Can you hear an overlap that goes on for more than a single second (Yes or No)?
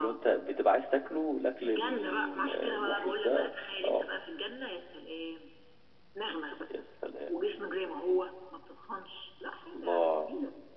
Yes